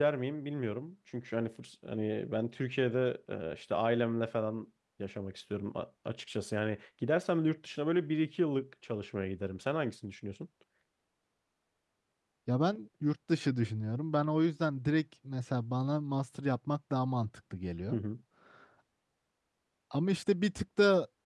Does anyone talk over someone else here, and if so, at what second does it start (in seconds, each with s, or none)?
none